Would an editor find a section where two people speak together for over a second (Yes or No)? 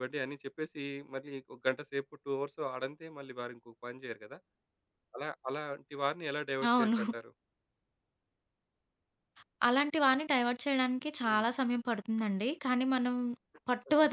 No